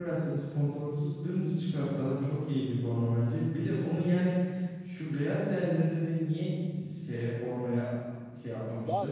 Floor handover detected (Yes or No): Yes